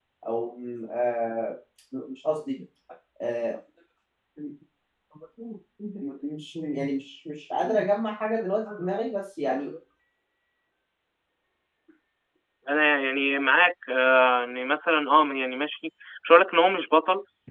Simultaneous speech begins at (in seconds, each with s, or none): none